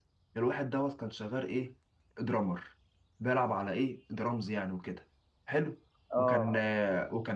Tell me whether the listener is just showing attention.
Yes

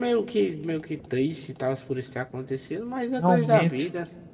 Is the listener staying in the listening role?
No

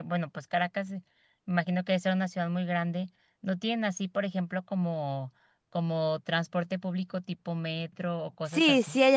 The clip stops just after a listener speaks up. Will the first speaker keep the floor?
No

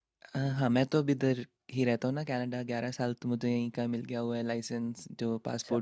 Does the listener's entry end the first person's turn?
Yes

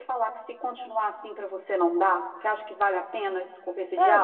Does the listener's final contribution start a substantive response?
Yes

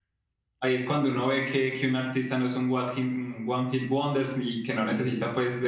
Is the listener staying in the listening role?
Yes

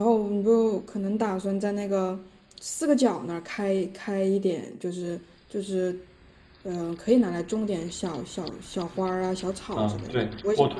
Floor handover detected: Yes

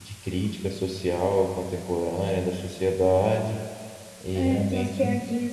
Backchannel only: No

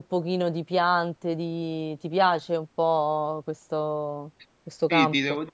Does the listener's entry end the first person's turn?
Yes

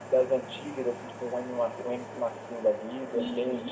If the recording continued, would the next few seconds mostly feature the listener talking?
Yes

